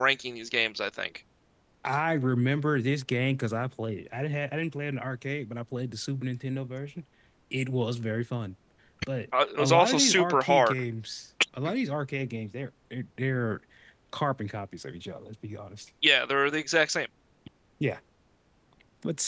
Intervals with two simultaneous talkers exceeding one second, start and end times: 9.6-10.8

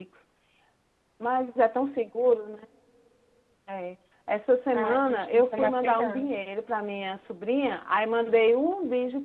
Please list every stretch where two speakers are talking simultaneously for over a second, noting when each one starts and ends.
4.7-6.3

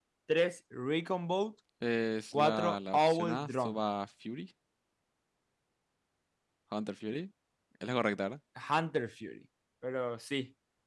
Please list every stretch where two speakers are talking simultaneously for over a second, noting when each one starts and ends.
2.3-3.8

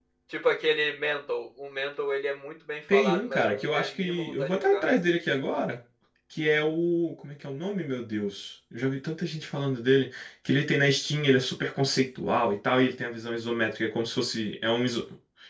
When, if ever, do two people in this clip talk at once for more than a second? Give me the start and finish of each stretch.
2.9-4.8

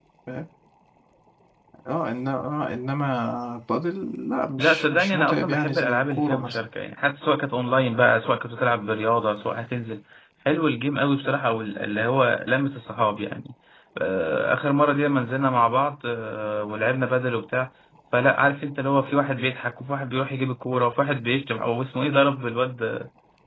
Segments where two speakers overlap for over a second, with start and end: 4.6-6.6

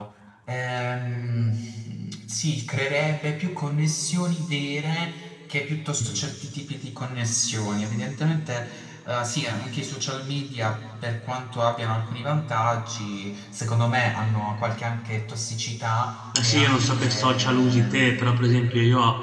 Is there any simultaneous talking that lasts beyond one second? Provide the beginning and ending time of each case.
16.4-18.2

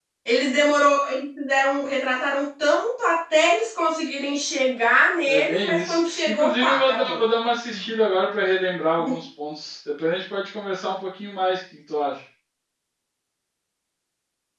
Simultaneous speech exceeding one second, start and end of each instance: 5.2-7.2

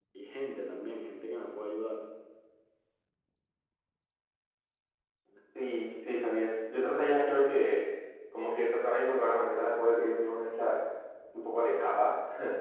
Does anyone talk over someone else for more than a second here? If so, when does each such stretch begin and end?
none

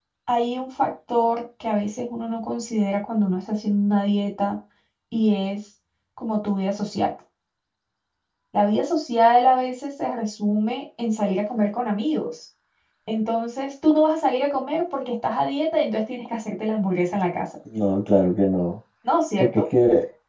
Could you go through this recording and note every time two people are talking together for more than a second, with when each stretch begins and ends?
none

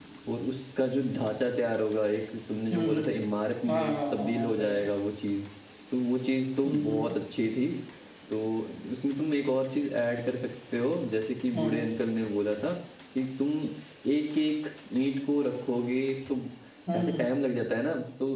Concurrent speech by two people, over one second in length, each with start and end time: 3.7-4.9

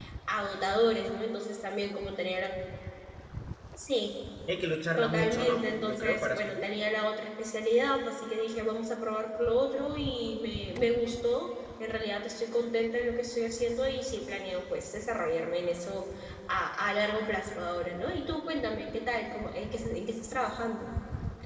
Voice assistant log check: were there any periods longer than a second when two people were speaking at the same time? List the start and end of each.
5.0-6.6

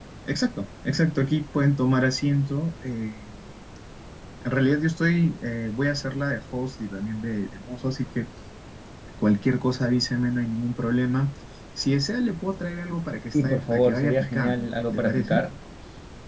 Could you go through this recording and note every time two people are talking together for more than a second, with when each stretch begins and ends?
13.3-15.4

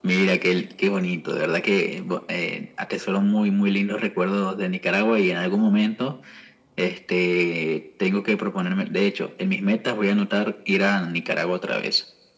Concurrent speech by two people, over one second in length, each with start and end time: none

